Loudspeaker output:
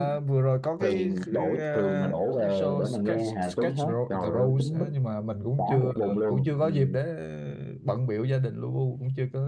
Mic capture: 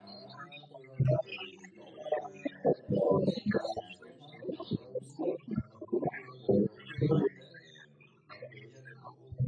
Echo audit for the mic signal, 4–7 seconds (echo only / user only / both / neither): echo only